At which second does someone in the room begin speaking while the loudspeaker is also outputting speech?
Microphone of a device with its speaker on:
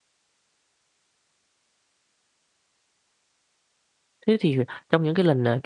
4.3 s

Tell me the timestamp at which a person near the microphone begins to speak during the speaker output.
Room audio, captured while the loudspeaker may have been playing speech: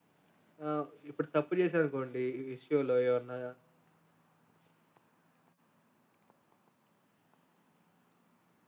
0.6 s

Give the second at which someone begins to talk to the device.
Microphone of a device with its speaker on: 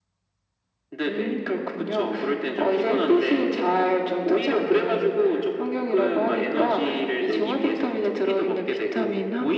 none

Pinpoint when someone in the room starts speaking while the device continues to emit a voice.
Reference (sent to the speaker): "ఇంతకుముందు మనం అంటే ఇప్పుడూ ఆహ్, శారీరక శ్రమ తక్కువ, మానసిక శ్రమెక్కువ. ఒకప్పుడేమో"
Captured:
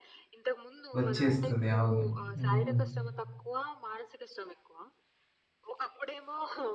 1.0 s

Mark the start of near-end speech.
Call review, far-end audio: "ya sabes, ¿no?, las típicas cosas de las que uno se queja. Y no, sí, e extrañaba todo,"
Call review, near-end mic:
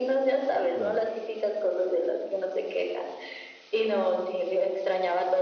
0.7 s

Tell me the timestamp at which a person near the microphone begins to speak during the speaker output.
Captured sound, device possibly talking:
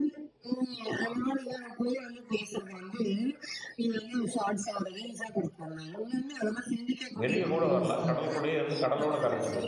7.2 s

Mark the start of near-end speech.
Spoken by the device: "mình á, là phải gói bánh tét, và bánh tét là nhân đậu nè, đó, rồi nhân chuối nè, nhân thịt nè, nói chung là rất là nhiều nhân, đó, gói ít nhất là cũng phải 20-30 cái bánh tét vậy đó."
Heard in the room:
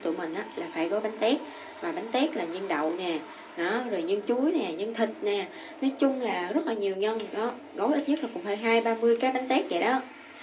none

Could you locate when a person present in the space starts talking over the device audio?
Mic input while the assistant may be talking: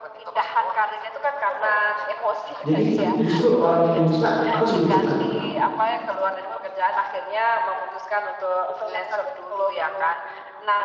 2.6 s

